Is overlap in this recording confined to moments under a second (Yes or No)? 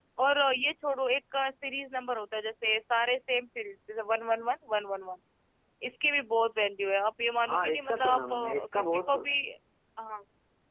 No